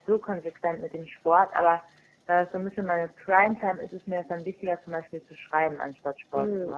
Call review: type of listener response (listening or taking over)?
taking over